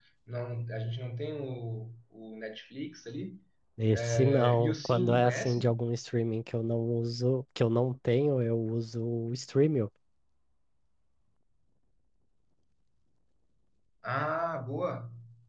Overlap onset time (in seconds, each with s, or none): 3.9 s